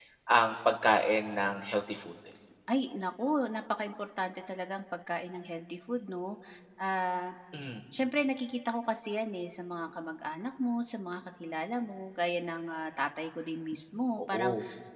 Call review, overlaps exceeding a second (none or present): none